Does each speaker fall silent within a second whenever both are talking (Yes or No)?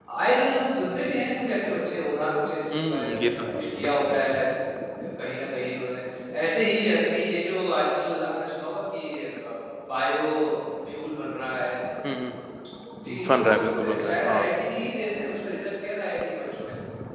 No